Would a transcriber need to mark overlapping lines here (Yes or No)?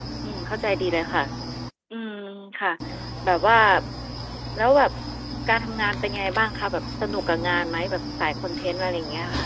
No